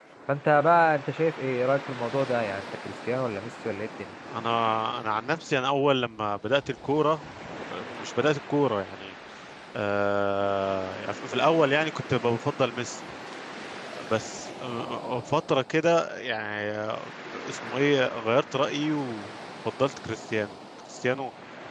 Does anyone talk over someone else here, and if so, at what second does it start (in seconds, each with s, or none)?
none